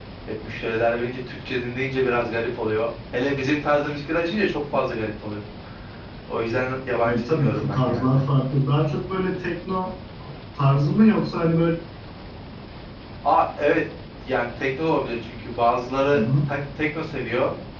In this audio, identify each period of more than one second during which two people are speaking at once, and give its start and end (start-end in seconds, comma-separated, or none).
7.0-8.2